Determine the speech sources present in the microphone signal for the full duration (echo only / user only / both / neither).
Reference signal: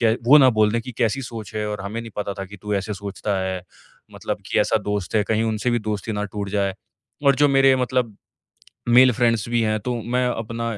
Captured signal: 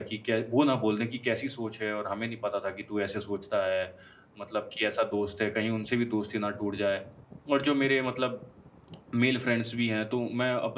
echo only